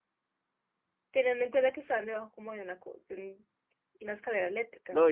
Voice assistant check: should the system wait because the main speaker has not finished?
No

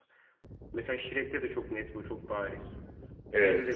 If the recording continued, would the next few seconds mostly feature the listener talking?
No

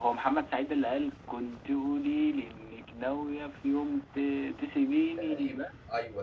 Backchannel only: No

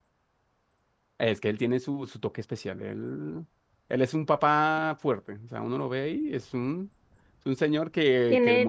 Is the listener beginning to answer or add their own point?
Yes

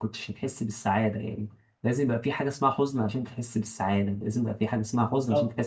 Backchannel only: No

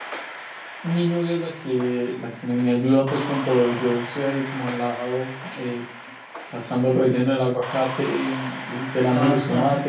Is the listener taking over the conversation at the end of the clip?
No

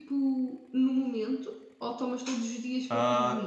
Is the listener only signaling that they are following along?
No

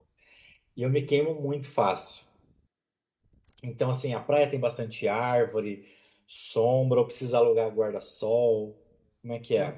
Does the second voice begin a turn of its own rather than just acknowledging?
Yes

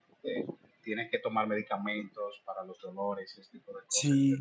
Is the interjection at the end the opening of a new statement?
Yes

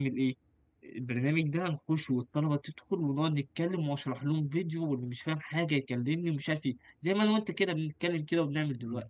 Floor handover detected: Yes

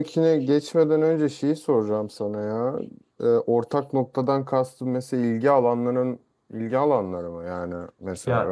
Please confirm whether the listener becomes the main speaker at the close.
Yes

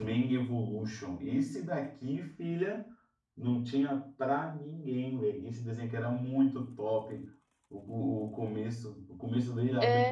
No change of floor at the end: Yes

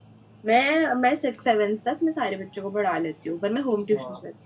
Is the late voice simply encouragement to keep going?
No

